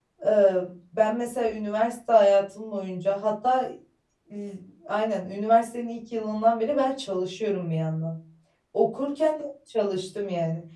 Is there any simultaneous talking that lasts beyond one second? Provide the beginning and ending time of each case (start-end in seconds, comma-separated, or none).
none